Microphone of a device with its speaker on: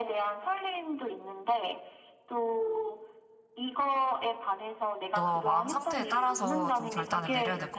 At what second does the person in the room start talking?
5.1 s

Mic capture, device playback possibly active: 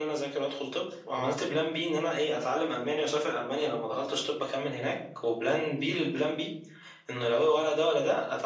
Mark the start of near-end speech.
1.0 s

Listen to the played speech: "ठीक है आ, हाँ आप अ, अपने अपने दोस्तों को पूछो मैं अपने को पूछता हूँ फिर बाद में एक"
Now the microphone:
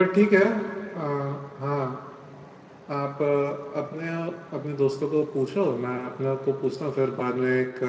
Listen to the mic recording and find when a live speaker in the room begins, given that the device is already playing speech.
none

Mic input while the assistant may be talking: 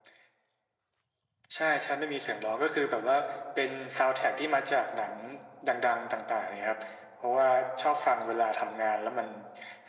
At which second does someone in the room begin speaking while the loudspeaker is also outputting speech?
none

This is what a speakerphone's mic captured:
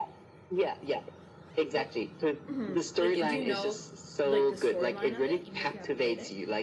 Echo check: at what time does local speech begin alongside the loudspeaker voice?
1.7 s

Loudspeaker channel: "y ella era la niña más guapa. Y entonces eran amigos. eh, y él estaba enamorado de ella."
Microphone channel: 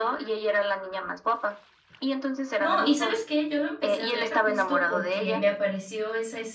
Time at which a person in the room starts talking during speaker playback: 2.5 s

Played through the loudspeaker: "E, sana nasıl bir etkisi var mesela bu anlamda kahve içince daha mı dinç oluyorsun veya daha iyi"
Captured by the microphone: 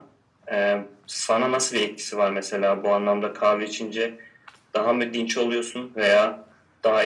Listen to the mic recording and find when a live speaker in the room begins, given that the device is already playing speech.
none

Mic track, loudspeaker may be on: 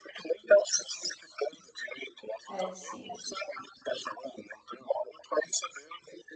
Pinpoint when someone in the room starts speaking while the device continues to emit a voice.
2.5 s

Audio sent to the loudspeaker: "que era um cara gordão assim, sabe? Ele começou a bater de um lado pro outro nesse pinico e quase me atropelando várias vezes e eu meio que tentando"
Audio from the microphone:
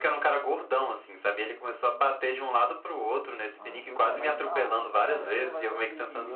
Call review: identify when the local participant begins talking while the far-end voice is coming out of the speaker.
3.6 s

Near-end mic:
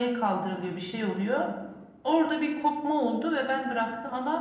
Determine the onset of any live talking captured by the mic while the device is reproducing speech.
none

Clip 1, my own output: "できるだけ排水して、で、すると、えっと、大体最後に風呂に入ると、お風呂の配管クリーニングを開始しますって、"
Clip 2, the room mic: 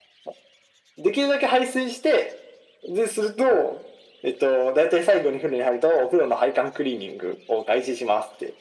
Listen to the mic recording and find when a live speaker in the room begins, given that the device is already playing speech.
none

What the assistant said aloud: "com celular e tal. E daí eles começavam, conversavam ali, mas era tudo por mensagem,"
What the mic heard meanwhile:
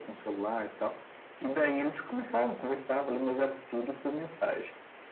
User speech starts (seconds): none

